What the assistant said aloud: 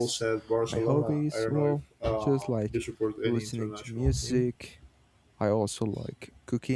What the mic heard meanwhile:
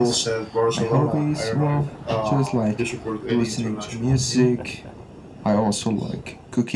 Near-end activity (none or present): none